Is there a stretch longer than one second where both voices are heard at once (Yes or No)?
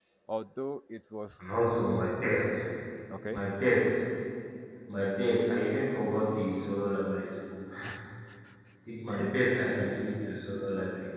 No